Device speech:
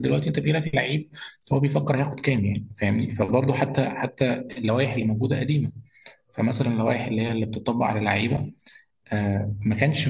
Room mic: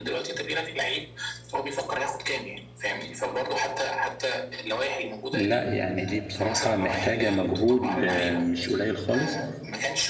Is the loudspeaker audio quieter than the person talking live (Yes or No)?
Yes